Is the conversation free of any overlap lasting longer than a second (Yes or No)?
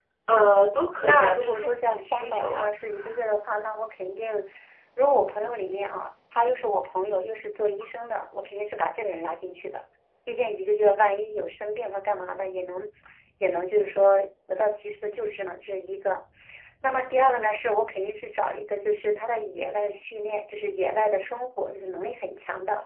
No